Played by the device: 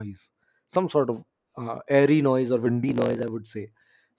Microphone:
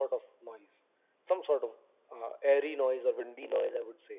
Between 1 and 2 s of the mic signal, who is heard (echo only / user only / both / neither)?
echo only